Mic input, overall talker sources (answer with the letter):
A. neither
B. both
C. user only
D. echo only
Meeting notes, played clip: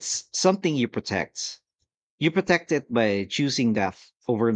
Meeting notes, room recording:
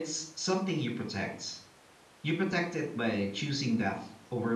D